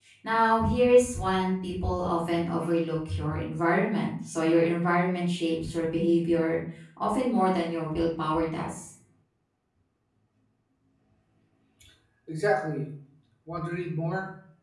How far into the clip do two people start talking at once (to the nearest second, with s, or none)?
none